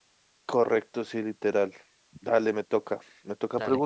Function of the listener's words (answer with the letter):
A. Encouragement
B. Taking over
A